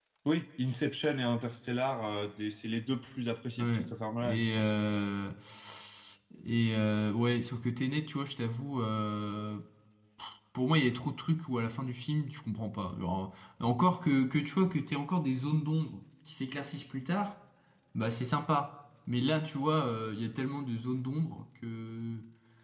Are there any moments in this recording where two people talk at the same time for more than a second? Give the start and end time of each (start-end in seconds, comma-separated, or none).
none